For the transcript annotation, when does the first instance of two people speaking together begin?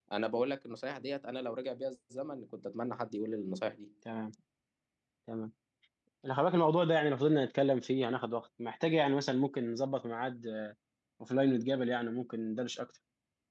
none

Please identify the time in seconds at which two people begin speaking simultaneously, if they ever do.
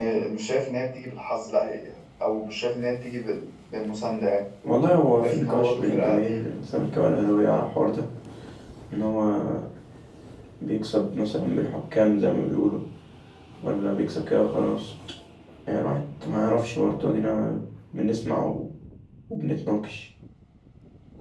5 s

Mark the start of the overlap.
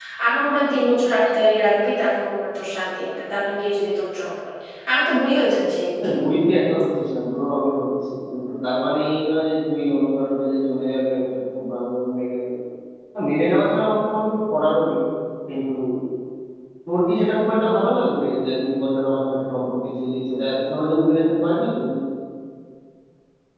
none

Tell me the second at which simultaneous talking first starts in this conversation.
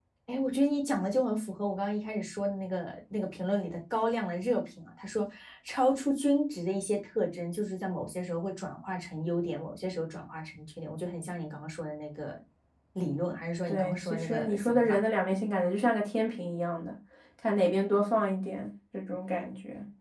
14 s

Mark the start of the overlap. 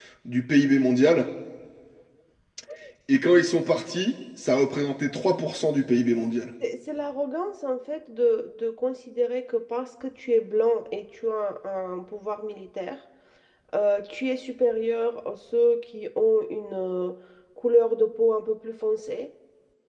none

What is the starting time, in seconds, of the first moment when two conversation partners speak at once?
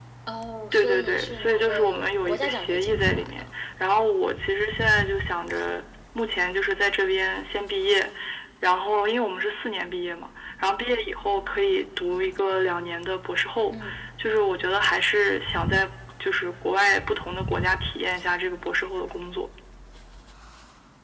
1 s

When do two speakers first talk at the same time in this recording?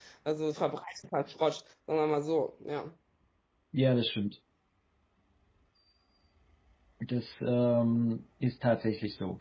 none

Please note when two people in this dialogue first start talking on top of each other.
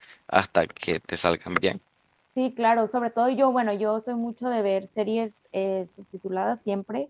none

